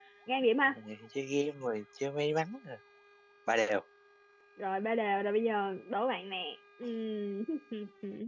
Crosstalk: none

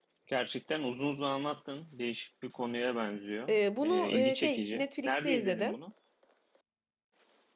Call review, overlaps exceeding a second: present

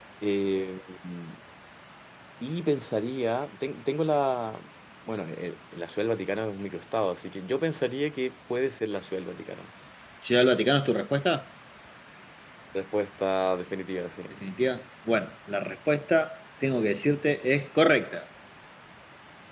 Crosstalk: none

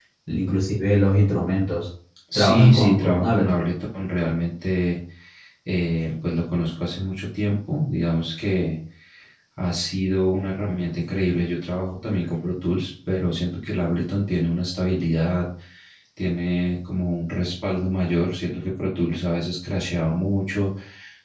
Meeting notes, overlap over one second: present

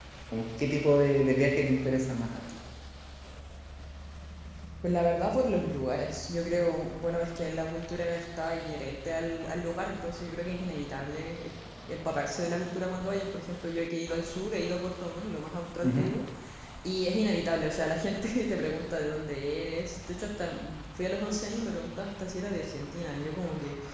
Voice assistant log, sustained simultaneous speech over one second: none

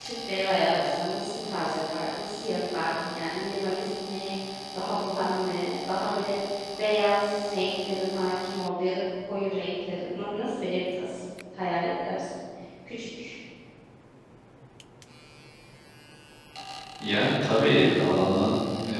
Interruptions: none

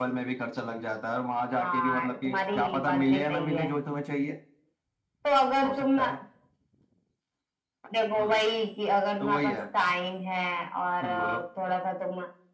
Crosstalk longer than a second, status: present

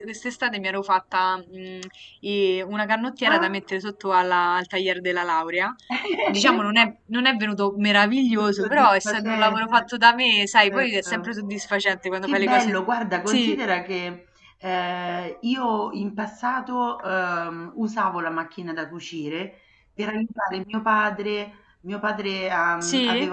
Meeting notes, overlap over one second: present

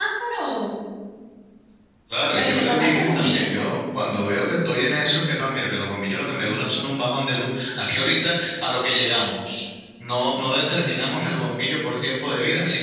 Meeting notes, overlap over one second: present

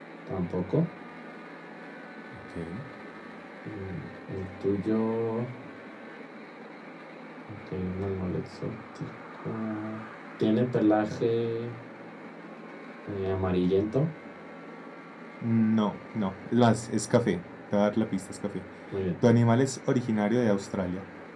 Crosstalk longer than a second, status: none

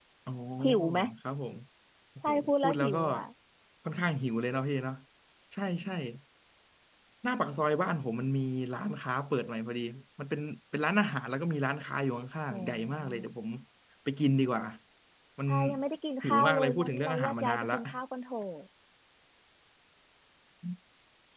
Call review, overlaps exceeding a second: present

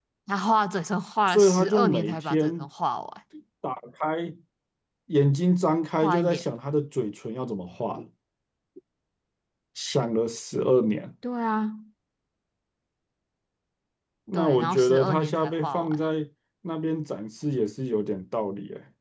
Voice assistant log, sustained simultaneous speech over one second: present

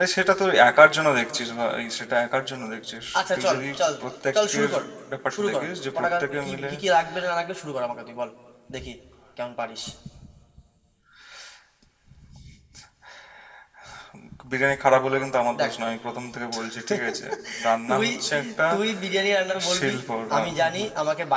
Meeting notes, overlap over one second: present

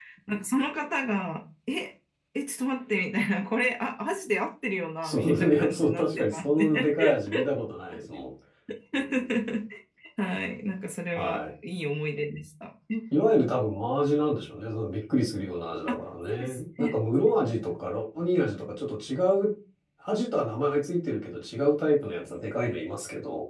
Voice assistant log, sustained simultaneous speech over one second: present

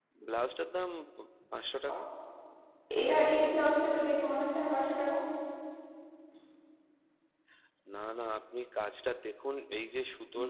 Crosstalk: none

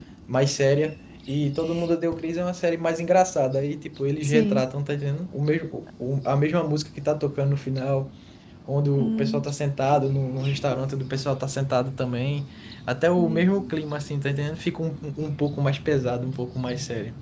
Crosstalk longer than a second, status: none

